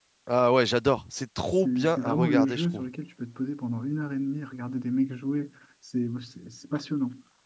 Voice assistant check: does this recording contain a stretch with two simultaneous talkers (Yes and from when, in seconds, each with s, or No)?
Yes, from 1.6 s